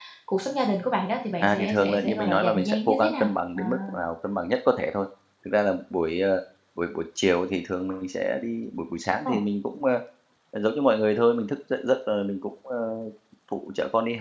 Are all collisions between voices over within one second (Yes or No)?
No